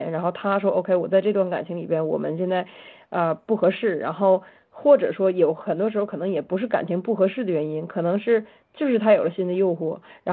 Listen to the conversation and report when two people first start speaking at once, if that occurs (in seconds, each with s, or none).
none